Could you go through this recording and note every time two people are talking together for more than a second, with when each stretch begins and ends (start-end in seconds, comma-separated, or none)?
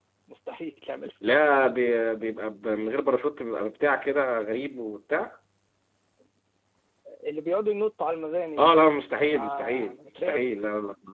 9.2-10.5